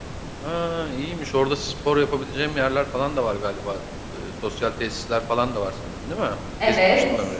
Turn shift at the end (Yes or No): Yes